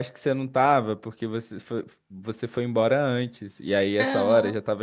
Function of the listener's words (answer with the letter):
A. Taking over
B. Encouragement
B